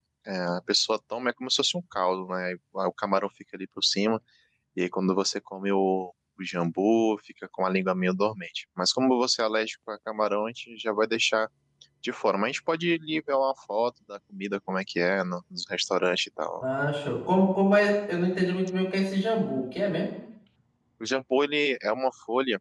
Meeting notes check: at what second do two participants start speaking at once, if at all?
none

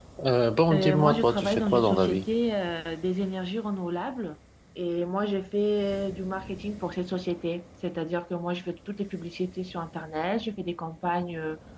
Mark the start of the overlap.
0.7 s

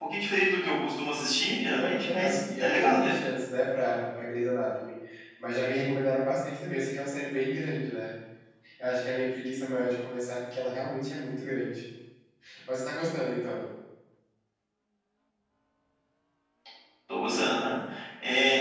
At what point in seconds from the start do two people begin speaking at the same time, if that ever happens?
1.8 s

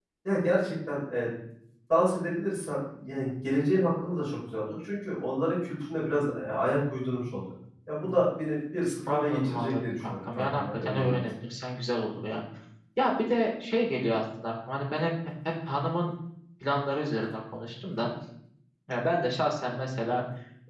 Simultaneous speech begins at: 9.1 s

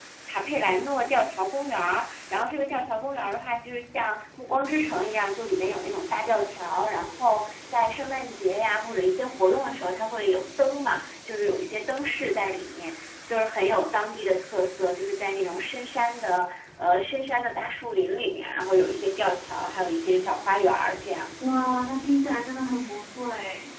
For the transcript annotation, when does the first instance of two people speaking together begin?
none

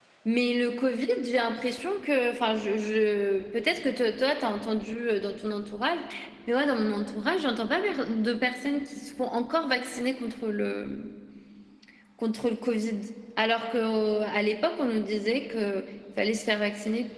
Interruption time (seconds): none

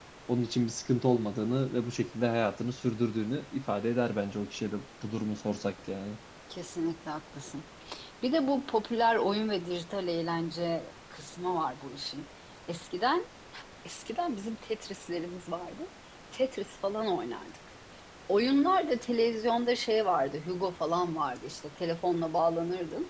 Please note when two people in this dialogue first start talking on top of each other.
none

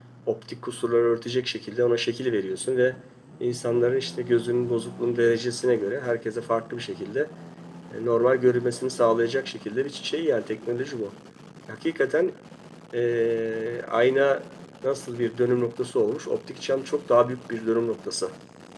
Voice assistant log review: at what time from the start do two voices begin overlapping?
none

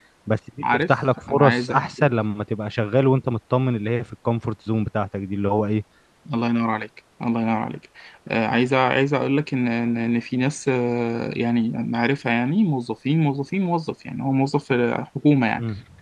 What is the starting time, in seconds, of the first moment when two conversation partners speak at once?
0.7 s

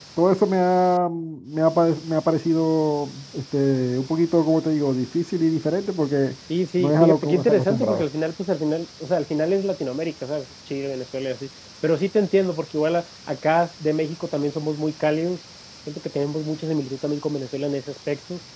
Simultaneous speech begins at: 6.8 s

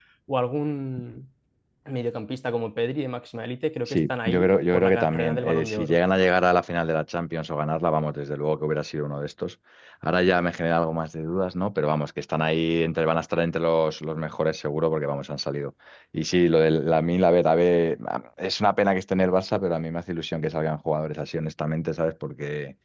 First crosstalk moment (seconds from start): 3.9 s

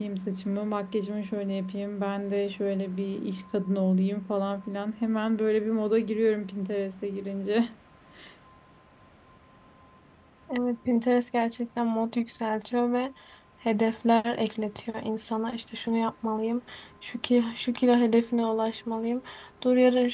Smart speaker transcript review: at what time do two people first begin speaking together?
none

